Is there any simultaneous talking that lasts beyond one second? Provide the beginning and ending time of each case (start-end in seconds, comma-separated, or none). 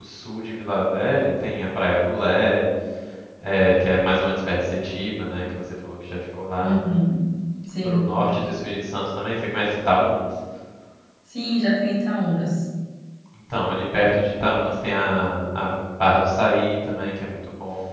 none